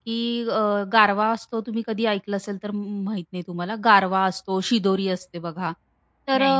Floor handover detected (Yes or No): No